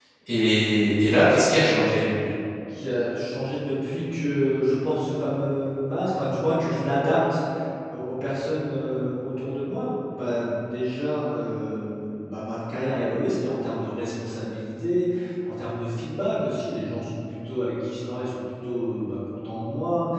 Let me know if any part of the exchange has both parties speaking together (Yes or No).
No